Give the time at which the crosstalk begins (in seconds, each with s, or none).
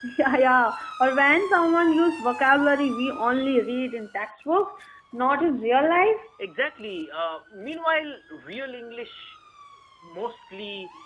none